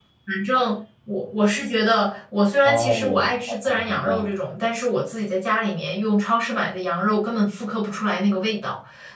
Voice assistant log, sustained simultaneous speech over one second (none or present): present